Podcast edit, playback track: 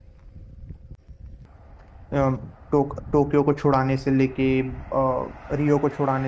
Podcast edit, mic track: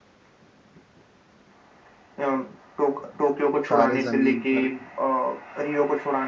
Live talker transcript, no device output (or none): तारे जमीन पर का।